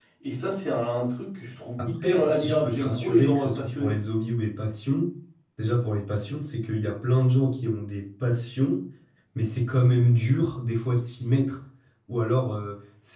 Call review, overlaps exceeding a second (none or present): present